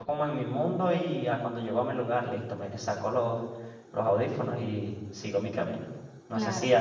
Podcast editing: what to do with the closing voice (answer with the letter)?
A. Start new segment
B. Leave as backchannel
B